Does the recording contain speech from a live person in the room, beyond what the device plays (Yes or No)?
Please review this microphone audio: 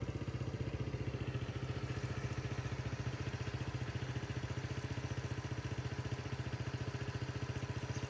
No